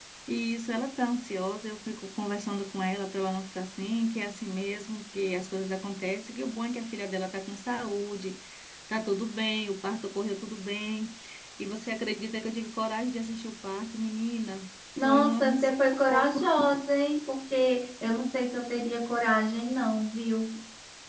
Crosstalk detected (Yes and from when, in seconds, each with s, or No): Yes, from 15.0 s